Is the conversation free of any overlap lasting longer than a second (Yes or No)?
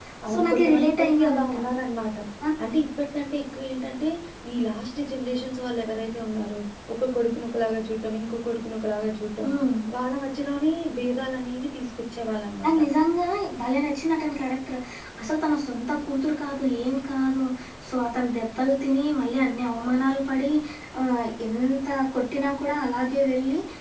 No